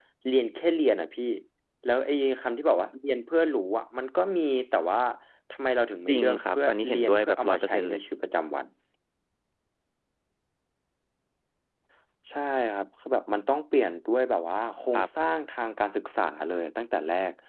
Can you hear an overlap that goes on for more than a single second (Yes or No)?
Yes